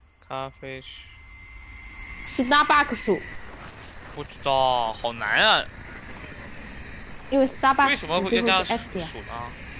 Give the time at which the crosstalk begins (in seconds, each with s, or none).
7.8 s